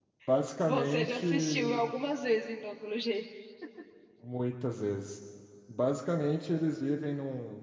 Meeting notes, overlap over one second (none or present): present